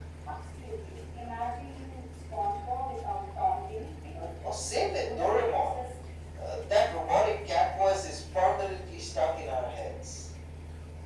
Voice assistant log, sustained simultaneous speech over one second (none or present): present